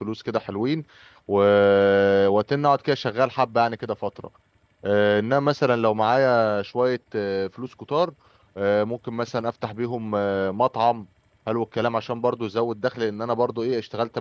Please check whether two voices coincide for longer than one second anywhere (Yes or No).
No